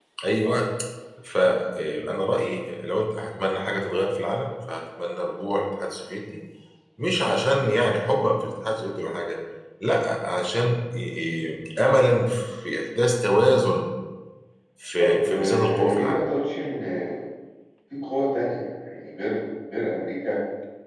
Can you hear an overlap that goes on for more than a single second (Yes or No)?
Yes